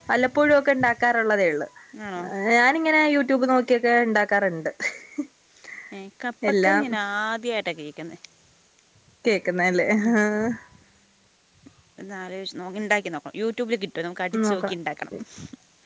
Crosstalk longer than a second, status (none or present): none